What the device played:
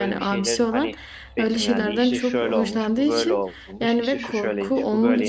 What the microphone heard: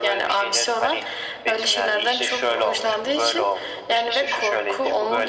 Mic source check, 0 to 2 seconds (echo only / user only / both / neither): echo only